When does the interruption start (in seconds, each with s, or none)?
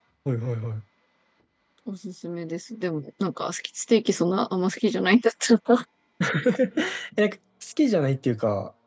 none